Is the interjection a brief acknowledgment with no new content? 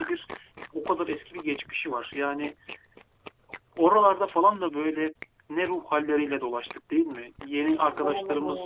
Yes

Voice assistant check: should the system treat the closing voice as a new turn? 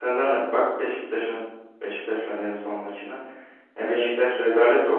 No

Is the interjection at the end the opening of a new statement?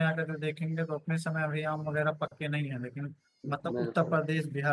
No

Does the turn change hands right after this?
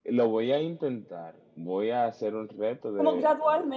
Yes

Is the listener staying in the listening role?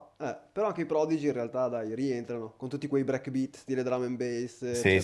No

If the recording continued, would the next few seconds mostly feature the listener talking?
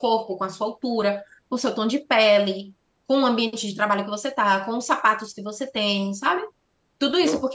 No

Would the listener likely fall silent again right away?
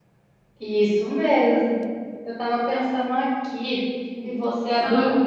Yes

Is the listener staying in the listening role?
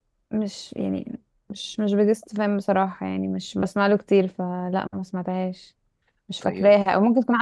Yes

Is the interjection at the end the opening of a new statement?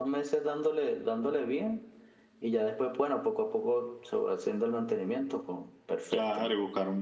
Yes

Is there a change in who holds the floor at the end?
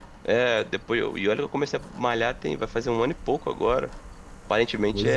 Yes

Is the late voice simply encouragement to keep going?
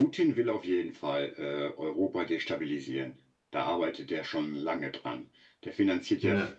Yes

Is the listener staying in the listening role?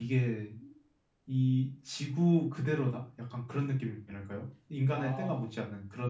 Yes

